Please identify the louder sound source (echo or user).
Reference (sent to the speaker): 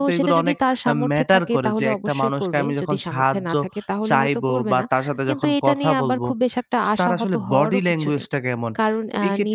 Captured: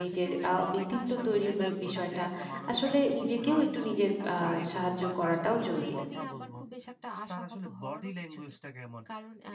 user